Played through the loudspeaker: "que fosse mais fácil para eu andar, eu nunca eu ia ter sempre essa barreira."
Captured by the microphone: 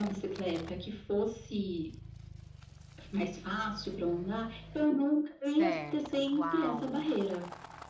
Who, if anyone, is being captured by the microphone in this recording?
both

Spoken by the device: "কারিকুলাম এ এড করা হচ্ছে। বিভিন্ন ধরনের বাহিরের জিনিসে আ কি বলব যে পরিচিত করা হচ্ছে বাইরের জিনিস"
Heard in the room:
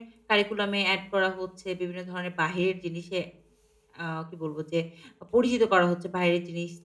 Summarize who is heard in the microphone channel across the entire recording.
echo only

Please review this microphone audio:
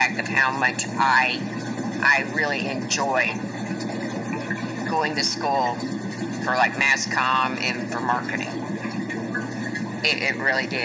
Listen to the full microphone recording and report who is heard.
echo only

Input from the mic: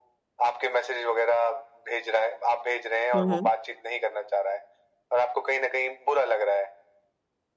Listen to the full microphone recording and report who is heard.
both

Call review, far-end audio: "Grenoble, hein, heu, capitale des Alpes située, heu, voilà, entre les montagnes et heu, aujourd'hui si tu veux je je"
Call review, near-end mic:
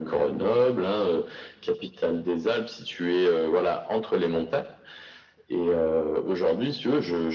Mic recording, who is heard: echo only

